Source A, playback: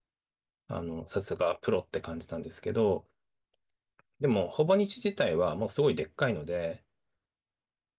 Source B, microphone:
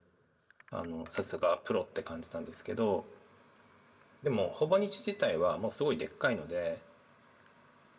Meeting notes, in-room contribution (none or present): none